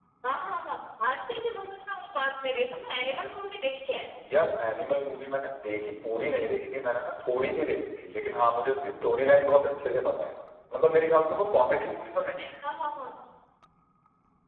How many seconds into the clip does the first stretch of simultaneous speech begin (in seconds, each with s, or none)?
none